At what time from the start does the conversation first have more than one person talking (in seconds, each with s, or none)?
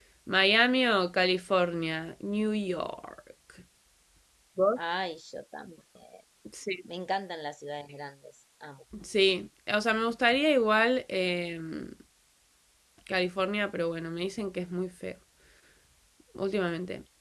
none